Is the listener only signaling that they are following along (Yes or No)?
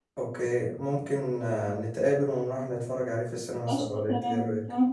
No